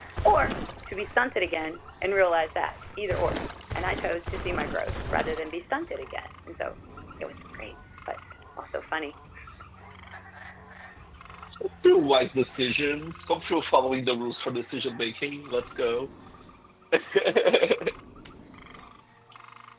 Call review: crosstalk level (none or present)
none